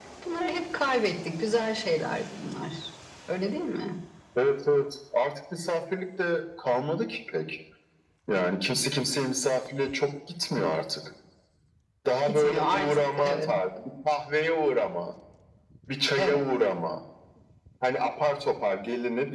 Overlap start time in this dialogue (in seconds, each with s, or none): 12.2 s